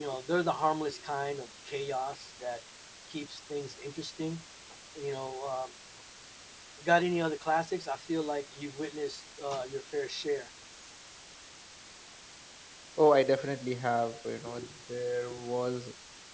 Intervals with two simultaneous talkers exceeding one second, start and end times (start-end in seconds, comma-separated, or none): none